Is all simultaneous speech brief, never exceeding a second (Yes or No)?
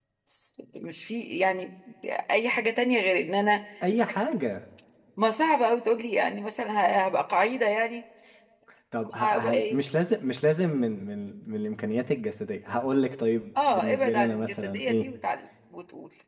No